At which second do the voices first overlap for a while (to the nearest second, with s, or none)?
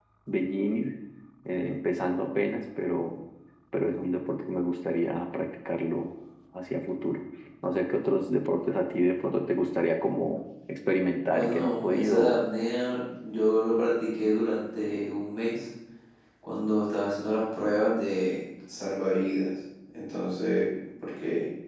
11 s